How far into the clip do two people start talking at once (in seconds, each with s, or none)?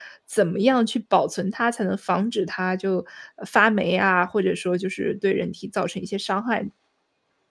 none